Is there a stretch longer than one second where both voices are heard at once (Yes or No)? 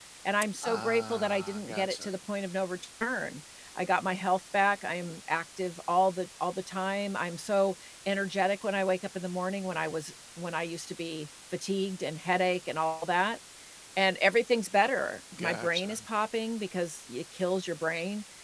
Yes